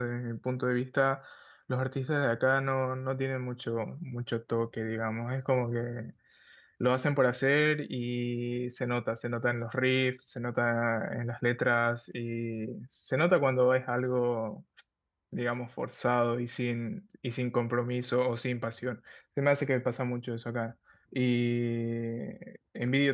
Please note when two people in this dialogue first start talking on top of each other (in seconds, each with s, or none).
none